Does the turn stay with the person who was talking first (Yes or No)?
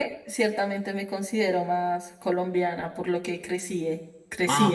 No